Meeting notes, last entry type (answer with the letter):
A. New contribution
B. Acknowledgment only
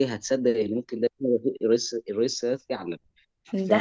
A